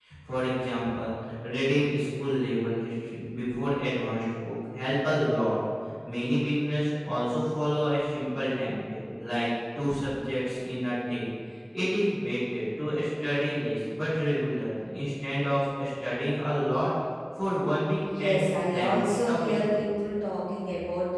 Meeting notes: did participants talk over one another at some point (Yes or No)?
Yes